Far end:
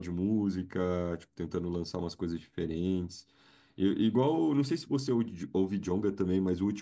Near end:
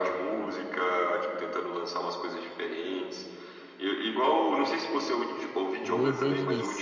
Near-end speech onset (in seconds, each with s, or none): 5.8 s